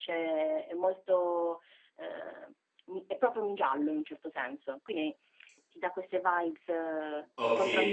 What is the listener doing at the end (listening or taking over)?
taking over